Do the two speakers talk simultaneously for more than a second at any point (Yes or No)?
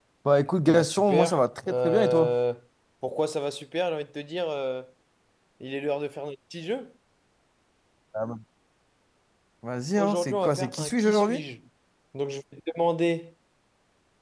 Yes